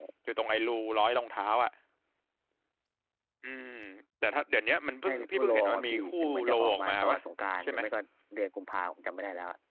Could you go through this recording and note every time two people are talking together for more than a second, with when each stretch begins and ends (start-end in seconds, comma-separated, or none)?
5.0-7.2